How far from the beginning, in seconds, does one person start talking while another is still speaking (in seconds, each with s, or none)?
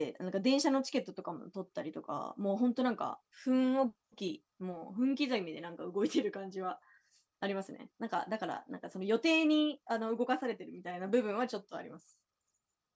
none